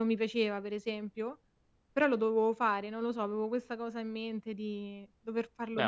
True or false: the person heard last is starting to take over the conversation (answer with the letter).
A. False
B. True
B